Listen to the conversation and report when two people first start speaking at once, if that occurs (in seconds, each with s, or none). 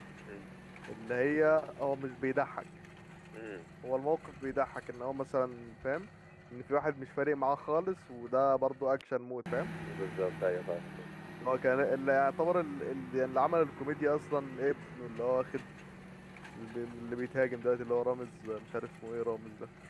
none